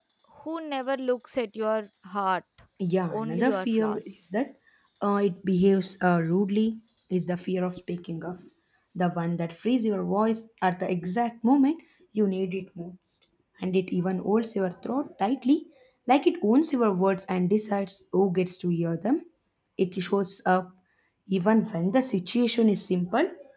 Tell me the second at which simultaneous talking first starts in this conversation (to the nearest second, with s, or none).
3 s